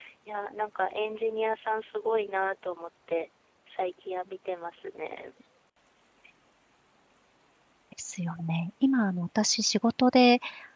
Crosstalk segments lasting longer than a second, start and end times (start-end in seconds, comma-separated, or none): none